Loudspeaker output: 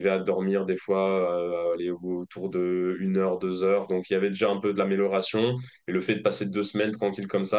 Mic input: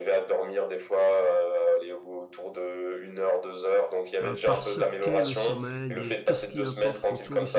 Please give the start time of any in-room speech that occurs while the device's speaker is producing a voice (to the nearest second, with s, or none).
4 s